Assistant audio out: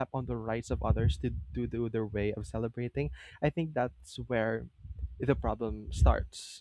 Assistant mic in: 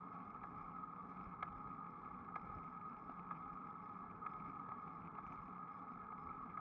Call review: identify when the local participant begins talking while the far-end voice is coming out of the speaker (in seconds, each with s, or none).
none